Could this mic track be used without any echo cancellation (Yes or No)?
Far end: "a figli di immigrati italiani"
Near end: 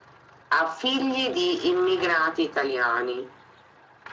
No